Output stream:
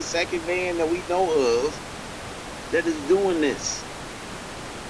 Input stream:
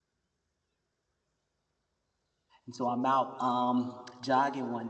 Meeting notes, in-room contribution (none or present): present